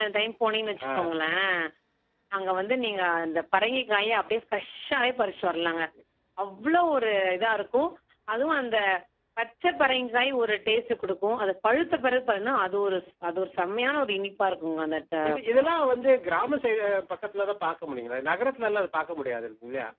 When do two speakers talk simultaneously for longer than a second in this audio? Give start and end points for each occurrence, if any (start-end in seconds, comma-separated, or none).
none